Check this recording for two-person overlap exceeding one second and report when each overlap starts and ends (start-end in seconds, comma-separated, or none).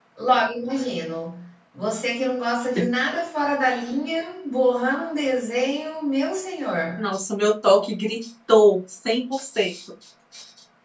none